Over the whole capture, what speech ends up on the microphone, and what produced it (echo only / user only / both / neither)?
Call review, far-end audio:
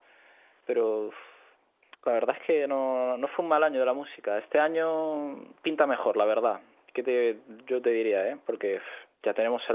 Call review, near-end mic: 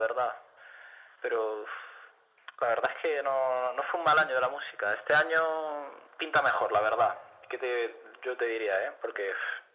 echo only